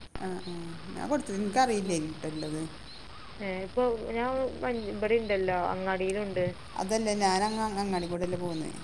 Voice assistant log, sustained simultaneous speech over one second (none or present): none